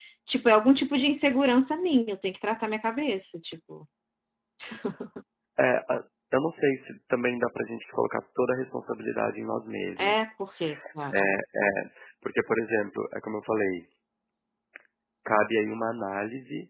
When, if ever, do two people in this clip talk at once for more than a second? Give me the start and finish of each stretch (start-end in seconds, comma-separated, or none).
none